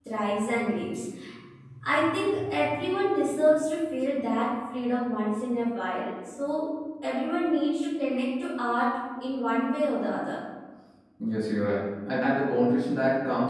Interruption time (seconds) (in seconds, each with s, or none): none